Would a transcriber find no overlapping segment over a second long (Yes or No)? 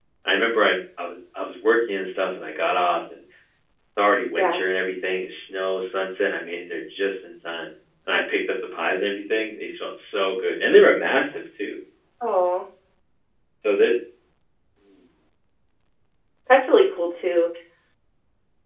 Yes